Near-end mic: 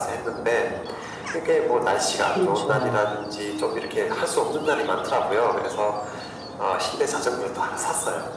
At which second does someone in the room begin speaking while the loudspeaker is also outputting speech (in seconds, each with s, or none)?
2.3 s